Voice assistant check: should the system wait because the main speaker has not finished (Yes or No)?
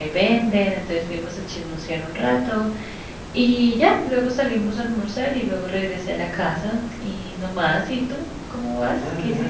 No